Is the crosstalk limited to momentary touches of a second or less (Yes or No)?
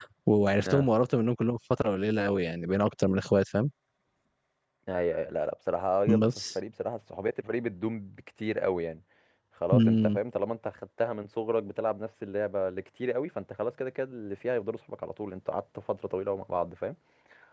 Yes